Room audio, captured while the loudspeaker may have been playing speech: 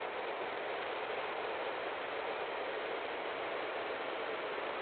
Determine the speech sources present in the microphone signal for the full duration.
neither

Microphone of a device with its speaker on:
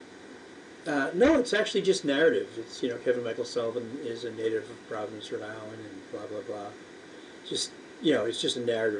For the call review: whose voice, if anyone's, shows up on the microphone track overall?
echo only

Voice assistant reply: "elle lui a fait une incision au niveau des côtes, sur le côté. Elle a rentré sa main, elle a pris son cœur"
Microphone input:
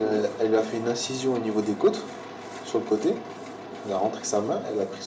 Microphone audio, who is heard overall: echo only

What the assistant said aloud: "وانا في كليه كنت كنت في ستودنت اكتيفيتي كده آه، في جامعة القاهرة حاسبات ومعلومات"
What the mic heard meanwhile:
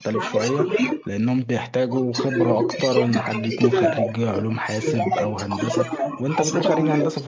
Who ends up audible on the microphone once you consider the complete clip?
both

